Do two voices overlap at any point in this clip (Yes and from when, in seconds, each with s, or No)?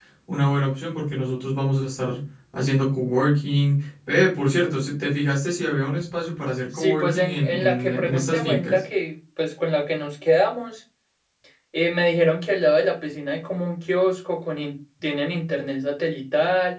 Yes, from 6.7 s